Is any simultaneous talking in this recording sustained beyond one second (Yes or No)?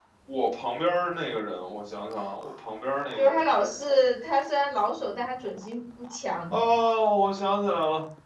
No